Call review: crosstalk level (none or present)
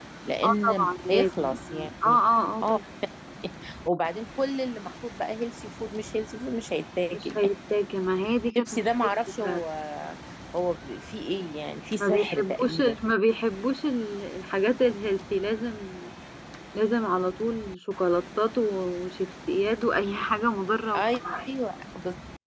present